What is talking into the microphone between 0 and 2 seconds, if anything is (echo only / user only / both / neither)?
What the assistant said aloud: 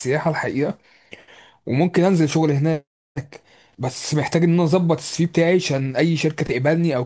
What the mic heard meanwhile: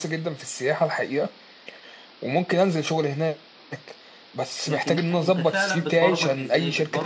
echo only